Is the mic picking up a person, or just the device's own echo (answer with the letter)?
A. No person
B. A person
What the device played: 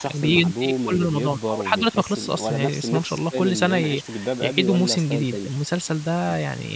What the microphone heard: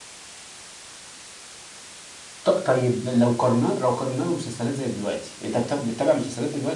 B